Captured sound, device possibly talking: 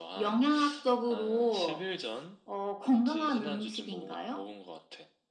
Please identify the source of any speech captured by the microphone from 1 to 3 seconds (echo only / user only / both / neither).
echo only